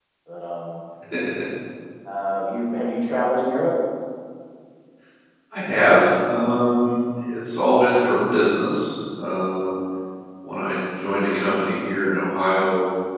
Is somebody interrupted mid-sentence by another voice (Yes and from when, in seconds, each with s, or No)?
No